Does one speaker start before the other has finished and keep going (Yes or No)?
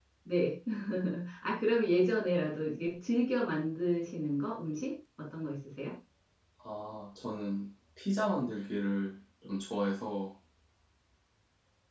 No